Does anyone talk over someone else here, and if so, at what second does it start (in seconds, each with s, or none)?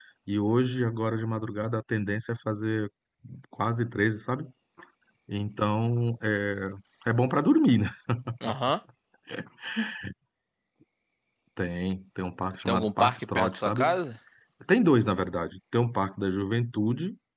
12.6 s